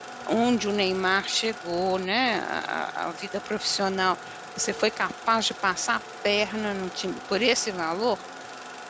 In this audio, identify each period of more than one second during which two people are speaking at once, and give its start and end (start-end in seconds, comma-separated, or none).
none